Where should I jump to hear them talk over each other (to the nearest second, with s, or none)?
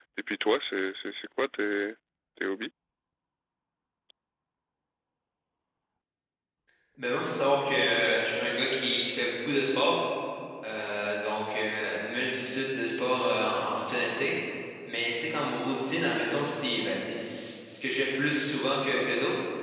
none